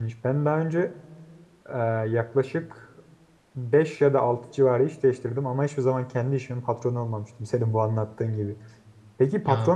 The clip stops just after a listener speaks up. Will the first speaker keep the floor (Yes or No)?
Yes